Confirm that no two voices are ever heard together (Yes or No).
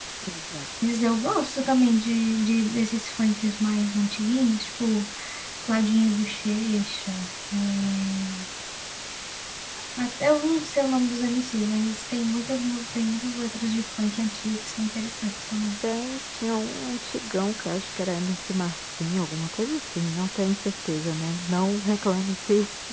Yes